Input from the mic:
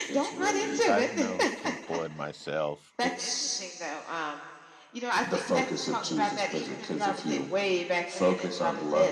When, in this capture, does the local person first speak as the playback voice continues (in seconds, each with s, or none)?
0.8 s